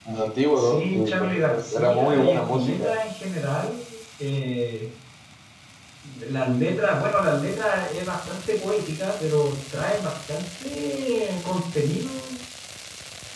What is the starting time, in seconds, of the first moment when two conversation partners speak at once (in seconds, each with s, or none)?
0.6 s